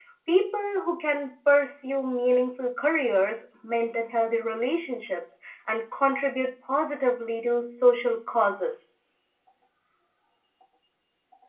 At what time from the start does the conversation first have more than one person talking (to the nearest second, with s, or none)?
none